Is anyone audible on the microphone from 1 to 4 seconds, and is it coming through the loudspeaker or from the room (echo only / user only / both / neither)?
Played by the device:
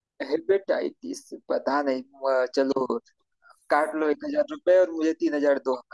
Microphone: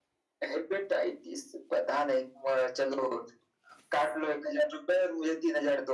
echo only